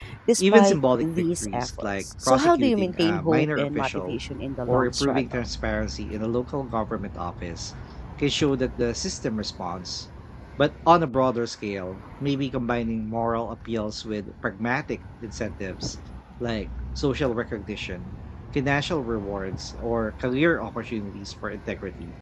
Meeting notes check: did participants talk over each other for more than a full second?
Yes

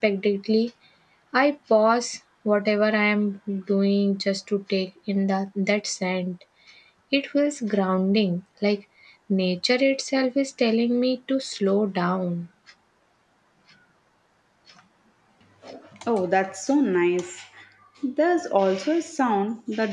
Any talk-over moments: No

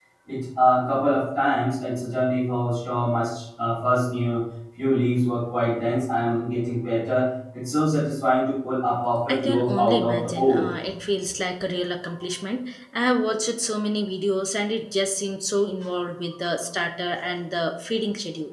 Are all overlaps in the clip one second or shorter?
No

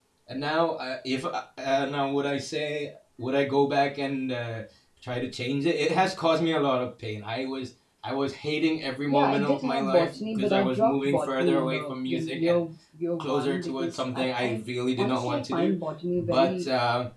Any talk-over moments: Yes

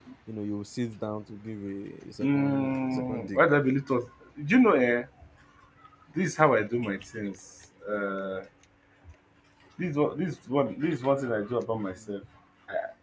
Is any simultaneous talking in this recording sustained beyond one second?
Yes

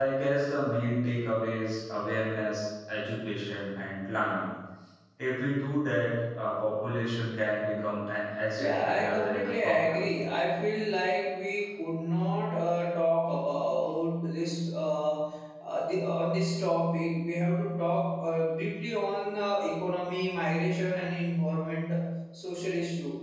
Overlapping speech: Yes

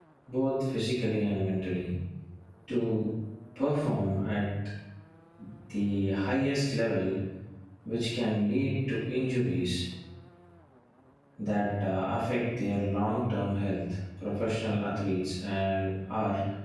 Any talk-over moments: No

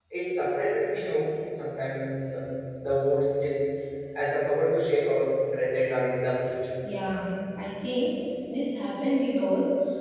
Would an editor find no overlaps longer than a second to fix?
Yes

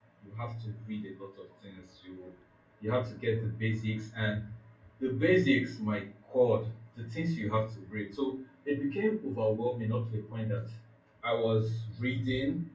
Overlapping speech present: No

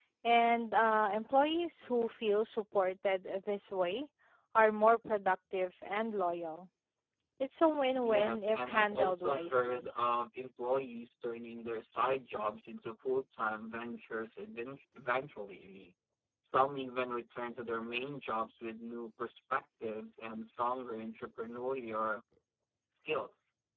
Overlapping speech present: Yes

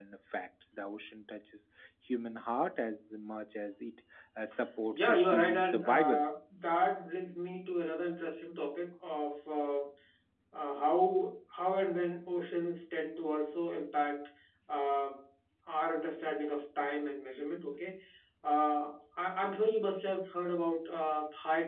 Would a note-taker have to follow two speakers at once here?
Yes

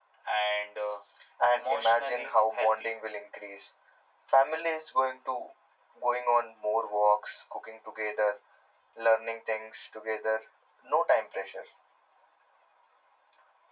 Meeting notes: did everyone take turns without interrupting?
No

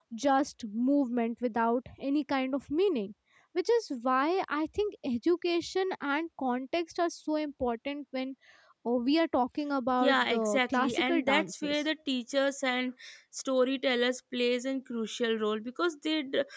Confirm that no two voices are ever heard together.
No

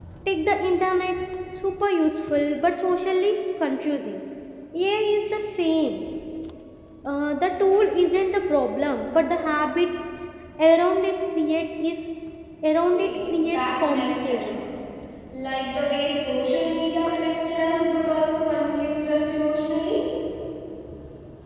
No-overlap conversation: No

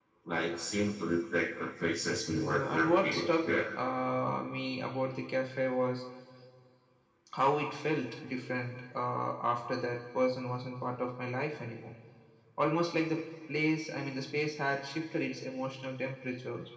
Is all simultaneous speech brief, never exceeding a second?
No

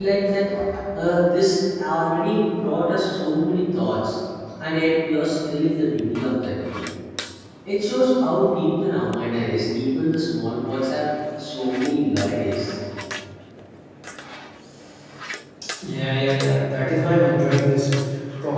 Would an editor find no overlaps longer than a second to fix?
Yes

